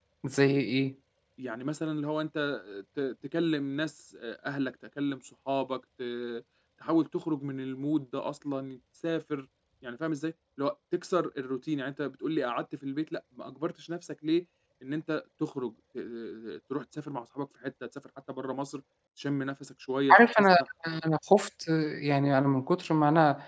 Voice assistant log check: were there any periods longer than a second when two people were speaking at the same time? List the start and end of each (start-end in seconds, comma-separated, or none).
none